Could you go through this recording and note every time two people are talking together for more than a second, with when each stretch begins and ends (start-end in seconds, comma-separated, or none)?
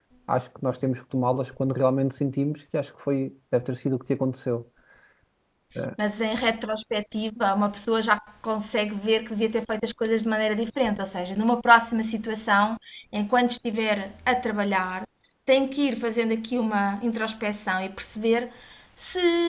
none